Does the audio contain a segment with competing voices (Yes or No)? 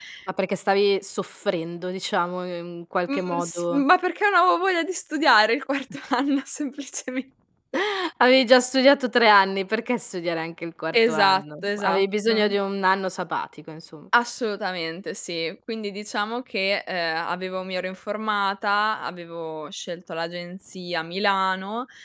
Yes